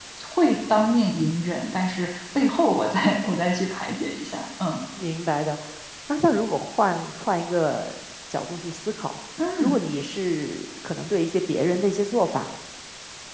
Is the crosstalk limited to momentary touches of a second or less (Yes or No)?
Yes